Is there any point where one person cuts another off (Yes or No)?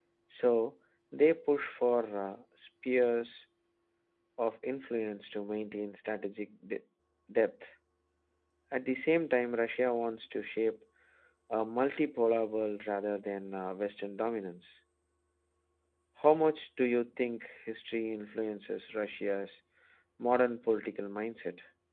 No